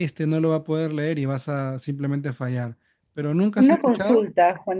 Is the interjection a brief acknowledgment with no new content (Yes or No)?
No